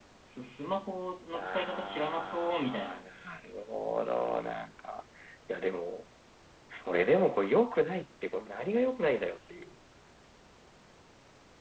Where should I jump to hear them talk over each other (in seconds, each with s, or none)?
1.3 s